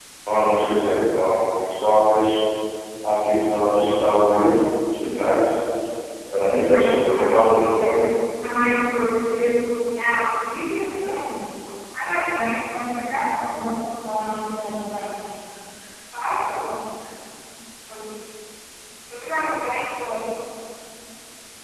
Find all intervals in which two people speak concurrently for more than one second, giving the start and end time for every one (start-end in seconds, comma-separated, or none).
6.4-8.1